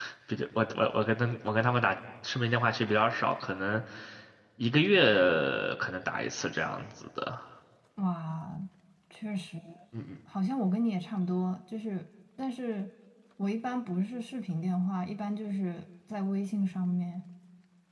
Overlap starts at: none

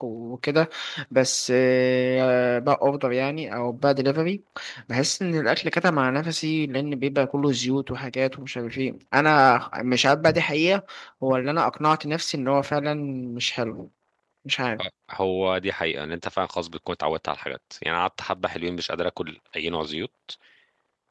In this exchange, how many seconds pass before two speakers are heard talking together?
none

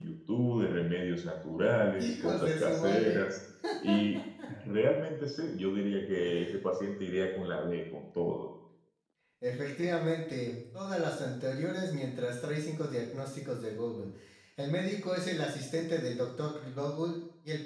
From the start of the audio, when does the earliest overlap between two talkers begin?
2 s

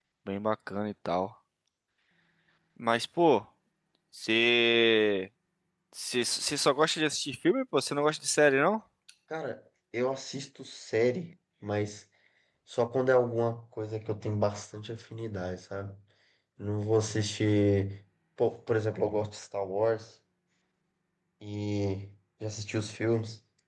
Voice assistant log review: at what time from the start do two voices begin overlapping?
none

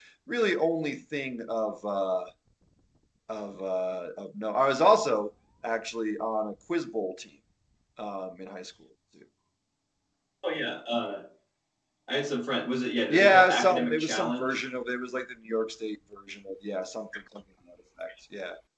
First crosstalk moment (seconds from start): 13 s

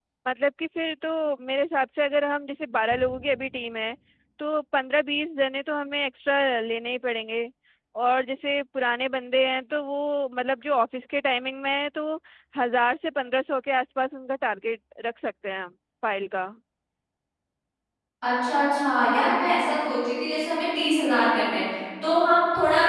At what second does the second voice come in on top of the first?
none

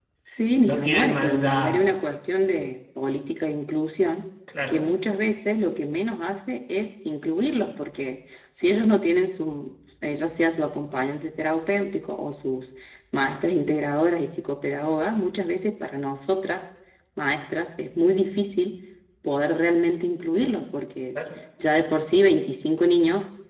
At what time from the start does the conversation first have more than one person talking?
1 s

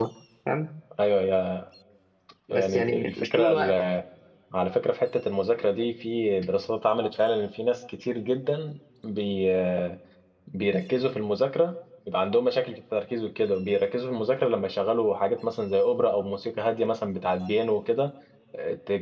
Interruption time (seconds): 3 s

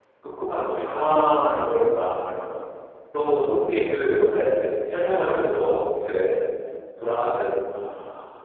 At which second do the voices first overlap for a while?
none

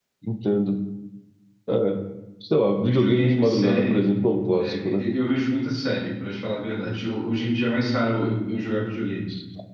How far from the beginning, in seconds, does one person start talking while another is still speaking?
3 s

